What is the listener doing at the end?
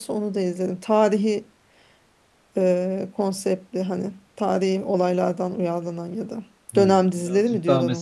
taking over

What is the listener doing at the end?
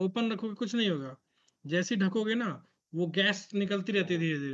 listening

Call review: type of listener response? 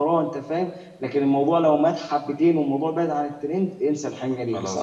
listening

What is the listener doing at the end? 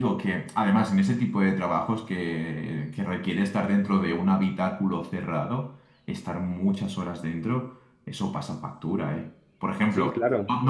listening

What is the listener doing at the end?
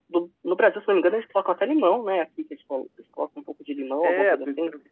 taking over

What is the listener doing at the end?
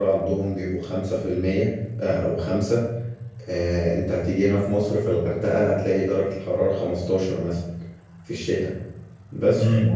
taking over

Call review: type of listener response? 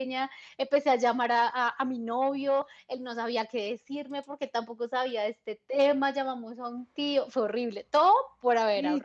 taking over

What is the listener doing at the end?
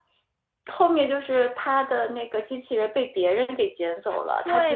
taking over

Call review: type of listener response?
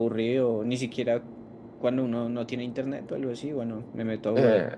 taking over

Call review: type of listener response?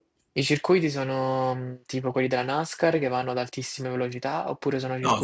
taking over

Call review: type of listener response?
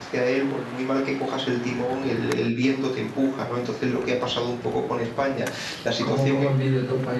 taking over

